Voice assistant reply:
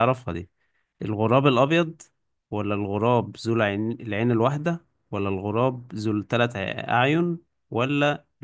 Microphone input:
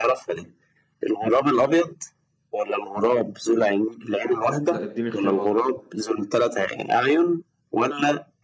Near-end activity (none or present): present